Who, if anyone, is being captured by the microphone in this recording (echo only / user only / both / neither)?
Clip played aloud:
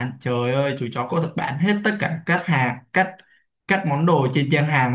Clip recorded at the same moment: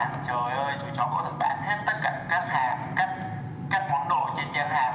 echo only